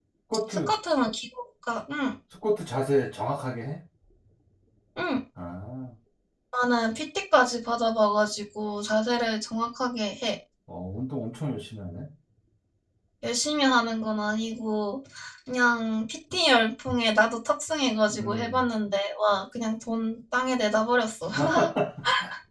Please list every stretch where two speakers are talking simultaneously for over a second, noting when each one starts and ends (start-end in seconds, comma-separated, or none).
none